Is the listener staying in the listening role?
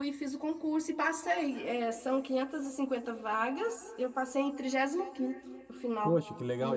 No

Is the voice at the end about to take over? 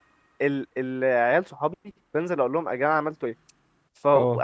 No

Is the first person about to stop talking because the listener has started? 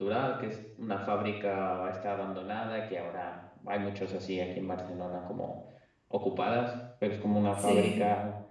No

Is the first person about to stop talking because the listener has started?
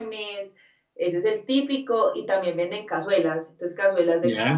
No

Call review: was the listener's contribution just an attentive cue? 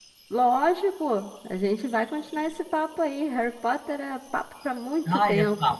No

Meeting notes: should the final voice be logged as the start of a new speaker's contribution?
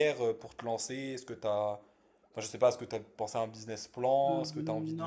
Yes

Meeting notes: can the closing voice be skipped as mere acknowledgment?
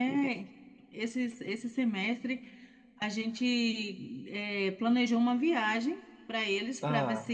Yes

